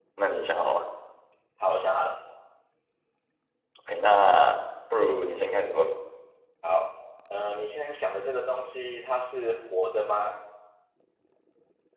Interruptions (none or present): none